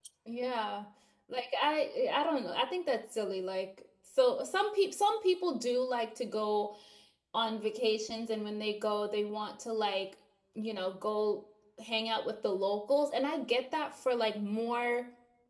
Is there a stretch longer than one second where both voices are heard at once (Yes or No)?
No